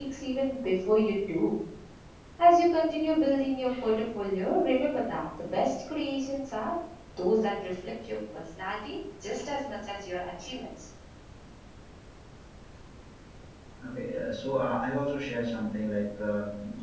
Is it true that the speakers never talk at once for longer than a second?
Yes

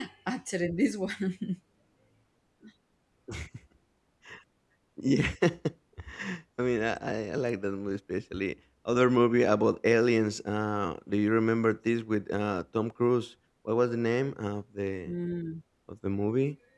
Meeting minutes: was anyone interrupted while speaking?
No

